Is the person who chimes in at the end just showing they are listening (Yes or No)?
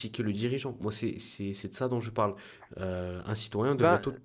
Yes